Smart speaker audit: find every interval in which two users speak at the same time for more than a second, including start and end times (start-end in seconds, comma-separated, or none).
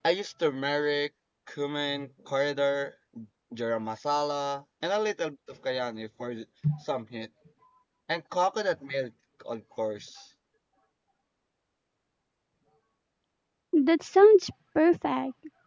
none